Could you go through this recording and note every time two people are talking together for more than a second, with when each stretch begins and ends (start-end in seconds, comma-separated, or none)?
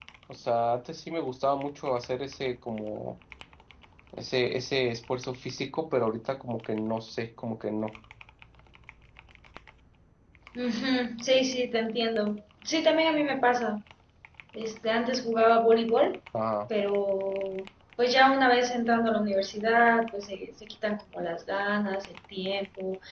none